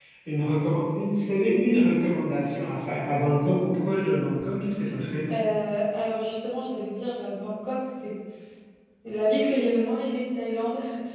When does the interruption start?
none

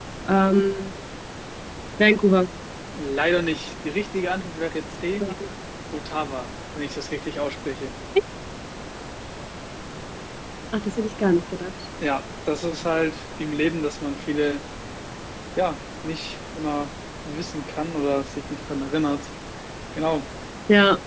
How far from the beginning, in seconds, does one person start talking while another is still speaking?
none

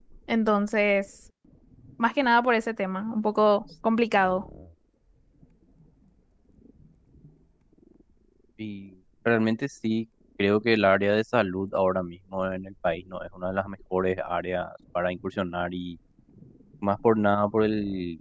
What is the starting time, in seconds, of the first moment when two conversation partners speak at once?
none

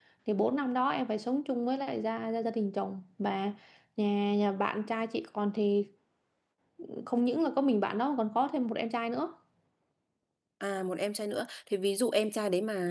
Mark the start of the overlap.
none

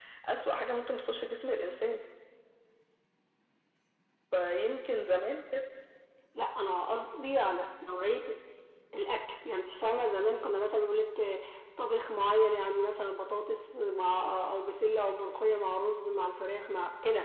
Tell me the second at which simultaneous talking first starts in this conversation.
none

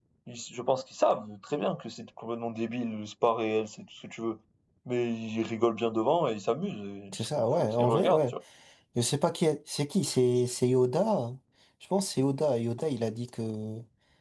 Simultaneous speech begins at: 7.1 s

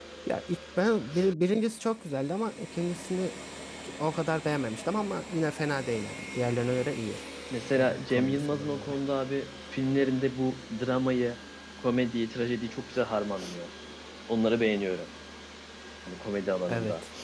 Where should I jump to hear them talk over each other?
7.8 s

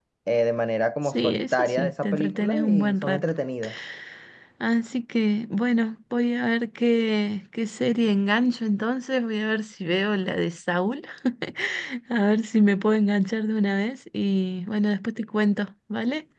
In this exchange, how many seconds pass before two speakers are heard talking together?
1.1 s

